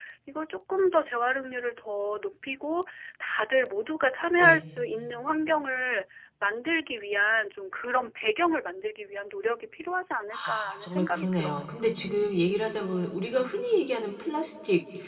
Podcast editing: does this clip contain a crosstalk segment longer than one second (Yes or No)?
Yes